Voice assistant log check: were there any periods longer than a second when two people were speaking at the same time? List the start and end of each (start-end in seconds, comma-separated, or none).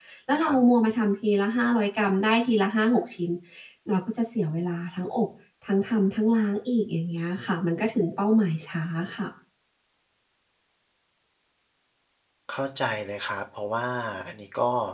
none